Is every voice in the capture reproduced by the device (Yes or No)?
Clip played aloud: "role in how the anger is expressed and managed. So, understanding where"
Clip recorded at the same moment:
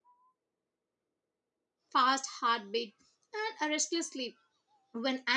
No